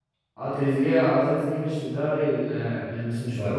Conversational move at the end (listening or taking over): listening